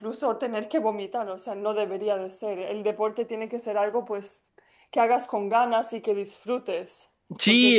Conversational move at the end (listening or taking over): taking over